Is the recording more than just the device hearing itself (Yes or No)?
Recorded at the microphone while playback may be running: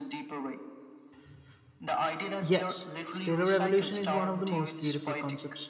Yes